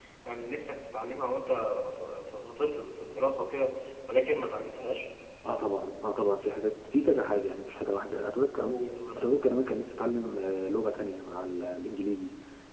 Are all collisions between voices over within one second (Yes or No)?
Yes